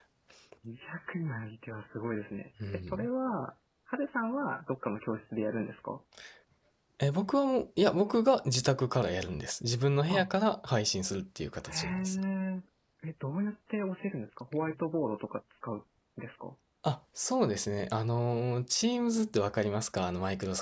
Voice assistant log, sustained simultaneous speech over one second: none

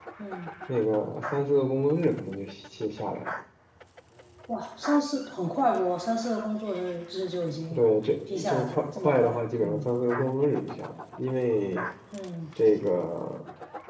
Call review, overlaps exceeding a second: present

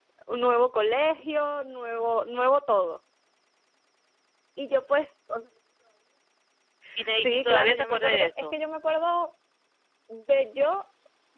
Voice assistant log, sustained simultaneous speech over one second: present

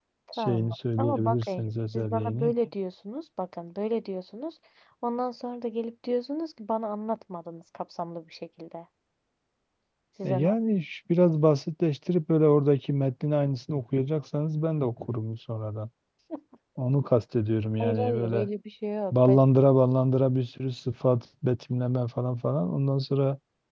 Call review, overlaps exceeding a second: present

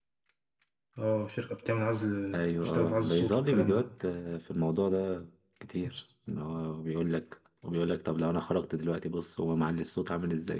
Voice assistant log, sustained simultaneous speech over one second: present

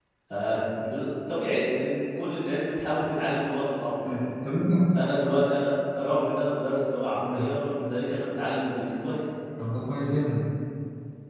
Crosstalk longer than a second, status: none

